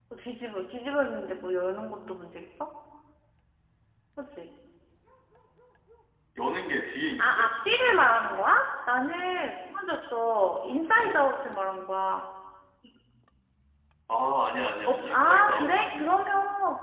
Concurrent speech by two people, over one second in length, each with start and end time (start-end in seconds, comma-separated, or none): 14.9-16.1